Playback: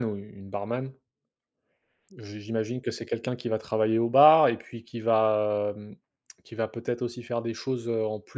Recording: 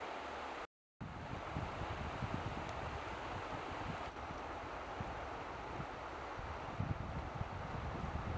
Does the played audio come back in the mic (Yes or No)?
No